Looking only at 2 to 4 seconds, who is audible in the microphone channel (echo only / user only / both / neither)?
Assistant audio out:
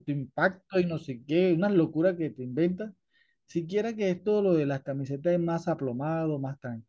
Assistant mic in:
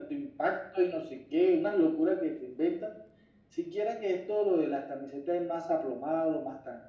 echo only